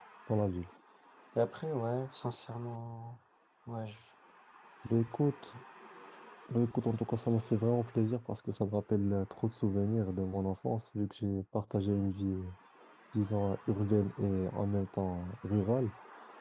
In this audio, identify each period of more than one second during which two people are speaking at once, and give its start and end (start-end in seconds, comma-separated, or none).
none